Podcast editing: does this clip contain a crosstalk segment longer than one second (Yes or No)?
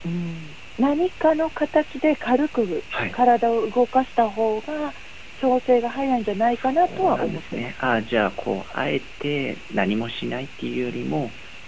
Yes